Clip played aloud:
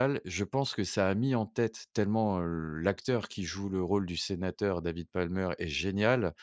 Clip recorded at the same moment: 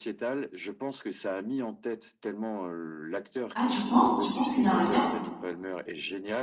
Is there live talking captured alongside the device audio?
Yes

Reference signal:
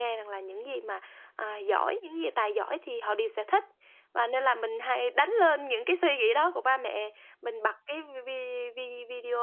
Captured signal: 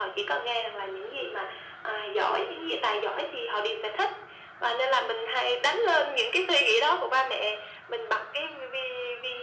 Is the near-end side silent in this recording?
Yes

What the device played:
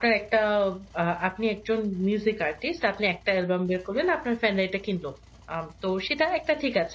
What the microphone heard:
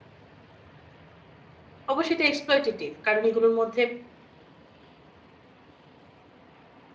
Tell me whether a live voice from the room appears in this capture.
Yes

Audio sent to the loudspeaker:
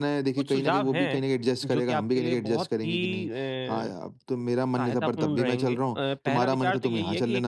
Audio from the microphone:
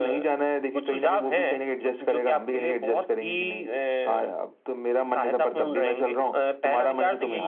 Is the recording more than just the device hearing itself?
No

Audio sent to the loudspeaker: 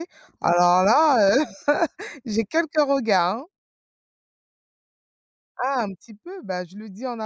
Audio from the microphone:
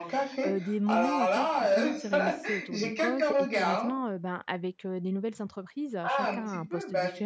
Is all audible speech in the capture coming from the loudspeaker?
No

